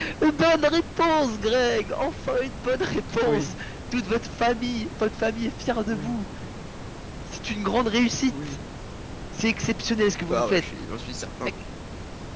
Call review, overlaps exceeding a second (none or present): none